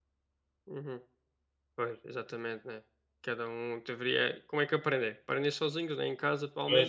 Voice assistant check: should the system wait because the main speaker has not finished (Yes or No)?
Yes